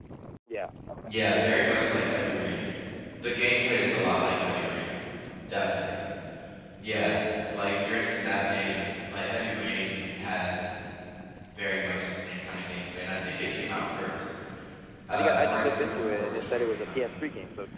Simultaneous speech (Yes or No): Yes